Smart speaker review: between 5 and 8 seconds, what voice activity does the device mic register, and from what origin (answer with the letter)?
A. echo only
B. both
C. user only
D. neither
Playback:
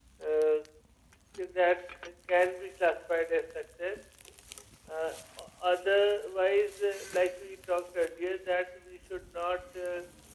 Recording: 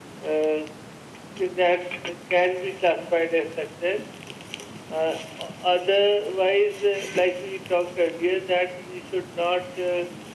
A